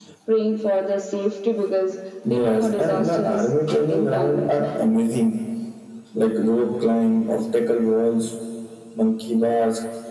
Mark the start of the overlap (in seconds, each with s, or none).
2.2 s